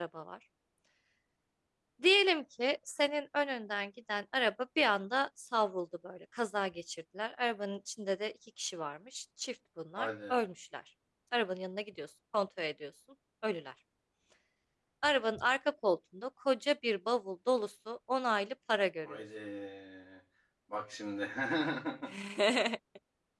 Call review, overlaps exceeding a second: none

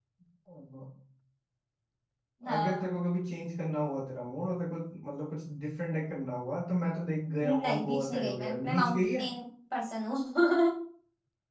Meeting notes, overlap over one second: present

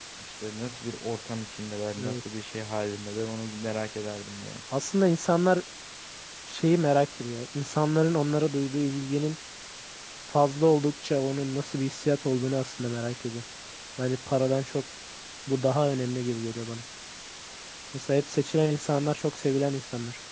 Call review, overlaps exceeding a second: none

